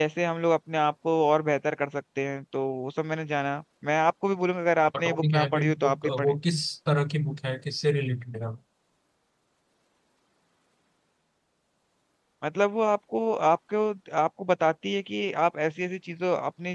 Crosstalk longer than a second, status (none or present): present